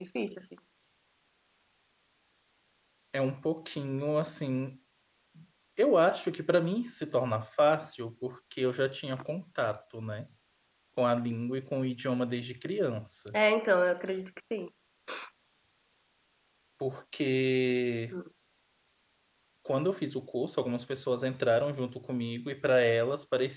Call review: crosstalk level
none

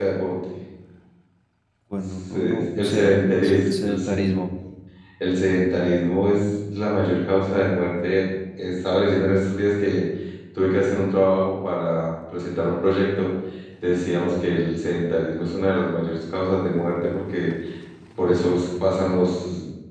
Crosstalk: present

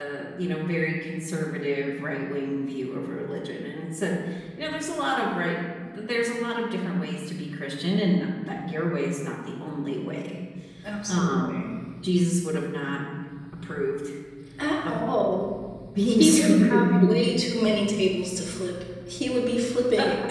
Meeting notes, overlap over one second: present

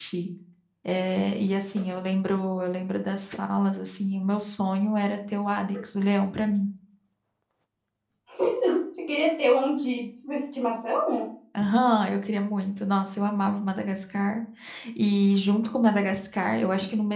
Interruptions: none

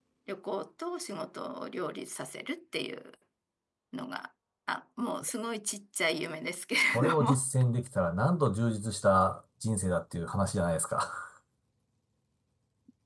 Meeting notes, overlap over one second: none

